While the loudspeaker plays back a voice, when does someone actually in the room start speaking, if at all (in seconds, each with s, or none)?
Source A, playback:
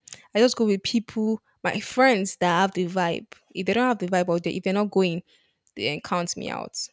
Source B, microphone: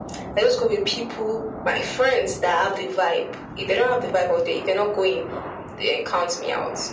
none